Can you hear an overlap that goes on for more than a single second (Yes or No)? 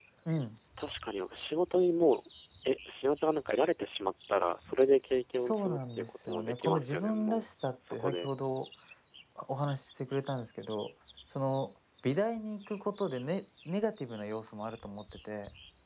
Yes